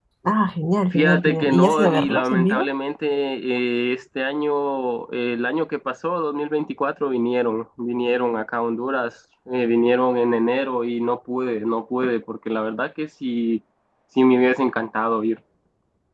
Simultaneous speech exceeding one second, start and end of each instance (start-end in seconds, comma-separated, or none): 0.9-2.7